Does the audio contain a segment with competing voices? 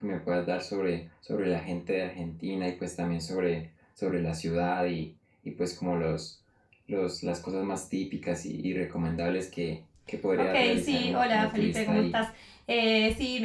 Yes, from 10.4 s

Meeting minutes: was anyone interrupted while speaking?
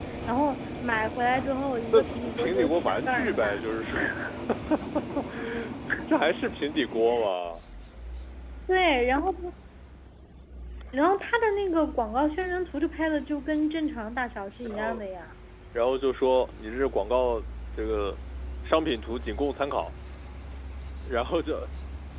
Yes, from 1.9 s

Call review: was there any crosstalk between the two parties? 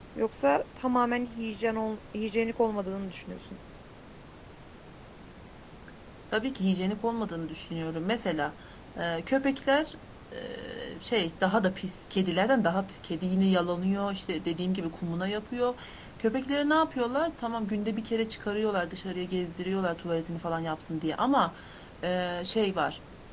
No

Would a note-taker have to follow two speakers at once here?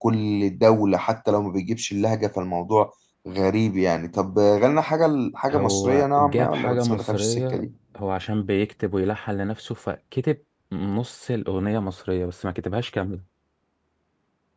Yes, from 5.5 s

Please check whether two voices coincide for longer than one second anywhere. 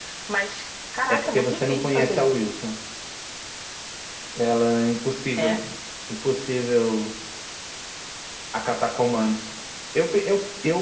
Yes, from 1.1 s

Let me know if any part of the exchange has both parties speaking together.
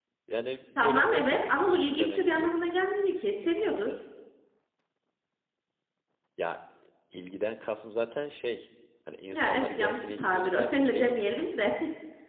Yes, from 0.8 s

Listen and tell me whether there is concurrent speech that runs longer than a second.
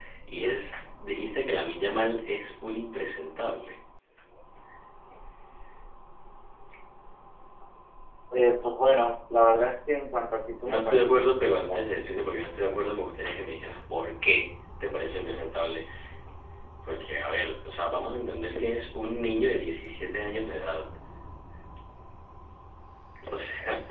Yes, from 10.6 s

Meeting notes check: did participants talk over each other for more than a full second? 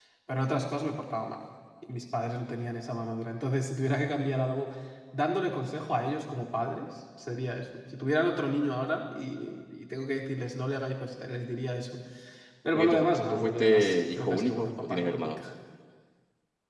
Yes, from 12.7 s

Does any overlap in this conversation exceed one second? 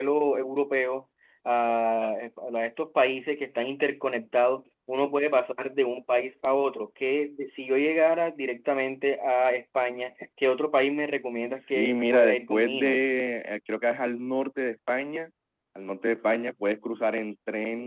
Yes, from 11.5 s

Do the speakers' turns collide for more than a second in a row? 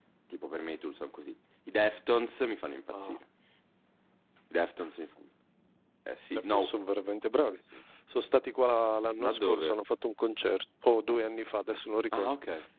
No

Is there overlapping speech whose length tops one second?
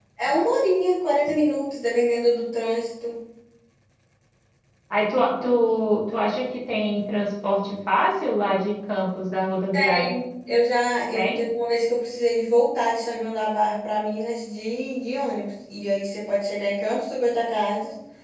No

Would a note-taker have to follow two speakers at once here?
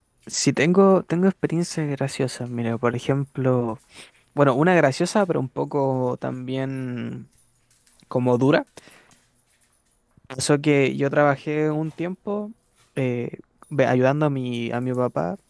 No

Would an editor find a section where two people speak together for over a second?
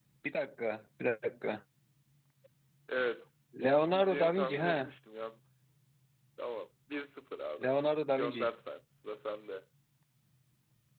Yes, from 3.6 s

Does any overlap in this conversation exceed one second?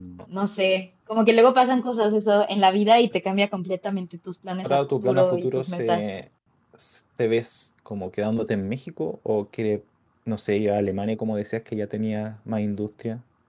Yes, from 4.6 s

